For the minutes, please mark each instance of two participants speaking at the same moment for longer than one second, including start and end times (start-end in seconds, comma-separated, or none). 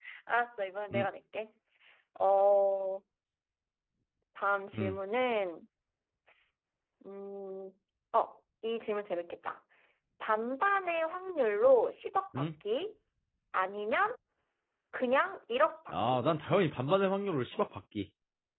none